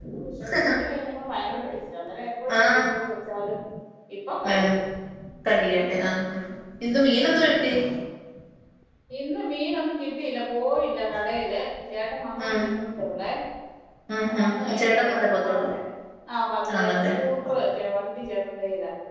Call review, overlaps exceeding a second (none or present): present